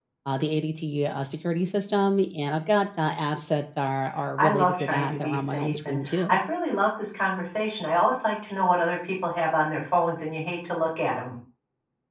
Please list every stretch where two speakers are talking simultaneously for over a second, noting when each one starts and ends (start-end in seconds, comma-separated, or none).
4.4-6.4